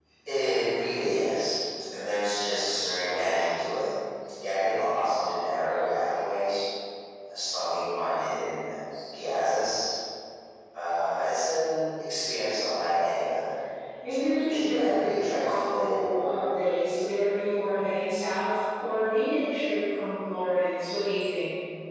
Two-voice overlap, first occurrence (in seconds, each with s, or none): 14.4 s